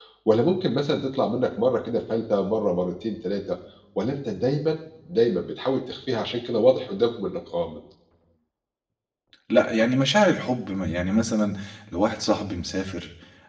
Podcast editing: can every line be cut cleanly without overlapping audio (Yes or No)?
Yes